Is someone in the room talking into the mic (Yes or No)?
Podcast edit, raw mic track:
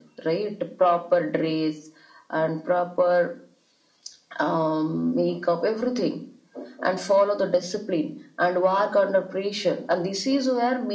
No